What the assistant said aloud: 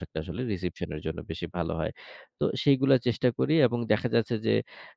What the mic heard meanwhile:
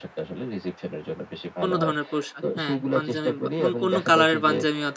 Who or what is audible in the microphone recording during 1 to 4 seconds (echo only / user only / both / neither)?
both